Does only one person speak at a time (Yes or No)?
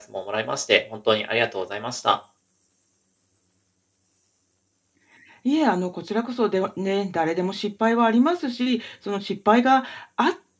Yes